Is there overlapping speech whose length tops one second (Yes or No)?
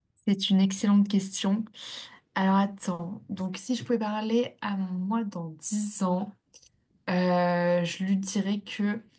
No